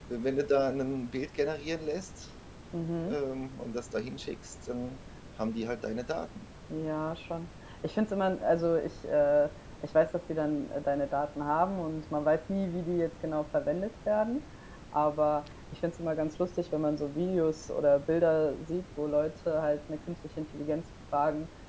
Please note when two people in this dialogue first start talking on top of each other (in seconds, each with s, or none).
none